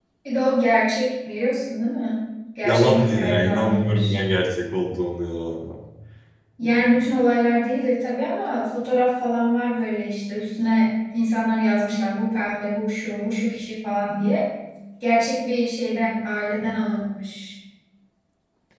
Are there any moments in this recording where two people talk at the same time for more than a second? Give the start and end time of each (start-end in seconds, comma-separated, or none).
2.6-4.2